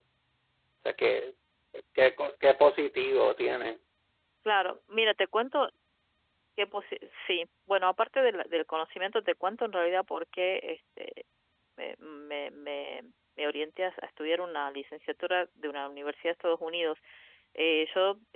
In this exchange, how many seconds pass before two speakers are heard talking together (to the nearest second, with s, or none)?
none